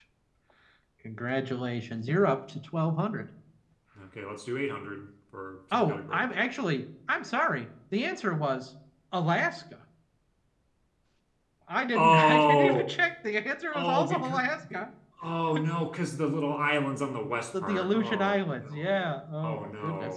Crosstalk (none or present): present